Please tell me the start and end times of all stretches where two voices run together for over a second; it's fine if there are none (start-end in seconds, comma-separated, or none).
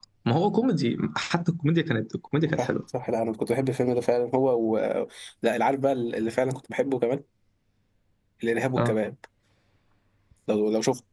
none